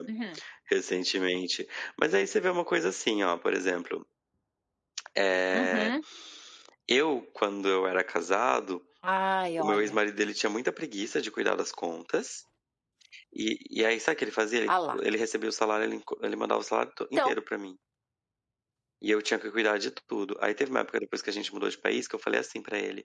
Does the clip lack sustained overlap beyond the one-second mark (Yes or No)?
Yes